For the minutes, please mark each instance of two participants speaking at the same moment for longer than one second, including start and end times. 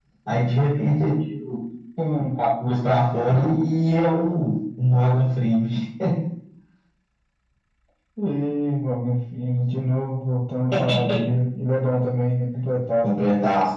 none

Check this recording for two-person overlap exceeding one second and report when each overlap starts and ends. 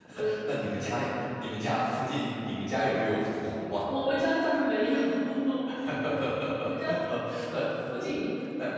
none

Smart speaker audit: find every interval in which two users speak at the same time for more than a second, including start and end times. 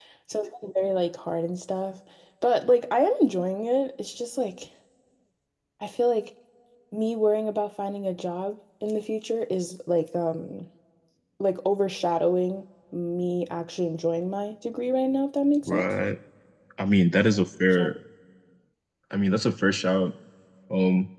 none

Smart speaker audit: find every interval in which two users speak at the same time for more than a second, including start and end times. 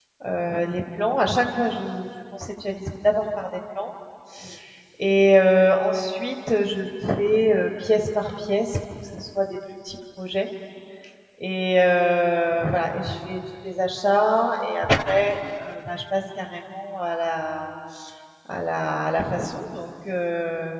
none

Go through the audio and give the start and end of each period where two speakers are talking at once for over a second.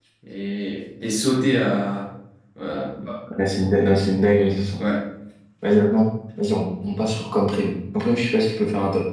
none

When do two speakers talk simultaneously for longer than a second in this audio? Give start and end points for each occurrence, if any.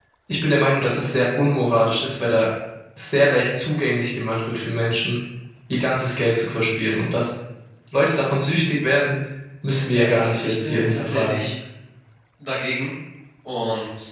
10.0-11.4

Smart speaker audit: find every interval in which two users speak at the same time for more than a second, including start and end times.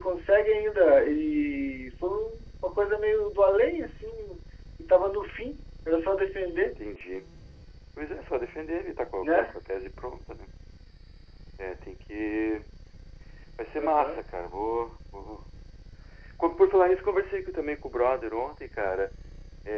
none

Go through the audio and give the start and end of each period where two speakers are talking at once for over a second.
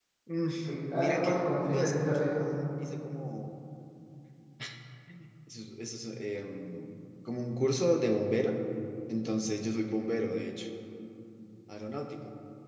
0.9-2.5

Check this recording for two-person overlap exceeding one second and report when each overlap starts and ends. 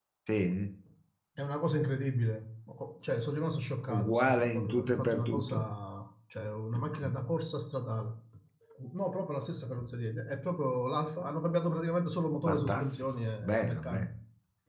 3.9-5.6, 12.4-14.1

